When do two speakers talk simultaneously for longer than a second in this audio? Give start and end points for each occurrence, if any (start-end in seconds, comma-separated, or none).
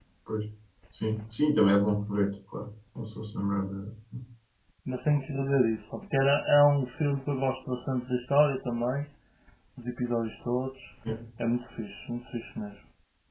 none